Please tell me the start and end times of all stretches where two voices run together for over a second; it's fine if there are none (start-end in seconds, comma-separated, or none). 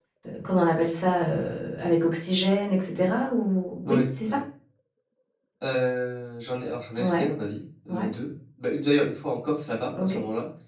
none